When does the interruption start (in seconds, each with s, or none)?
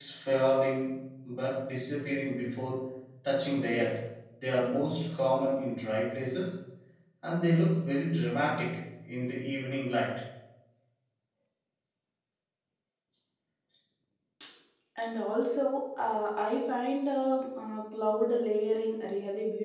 none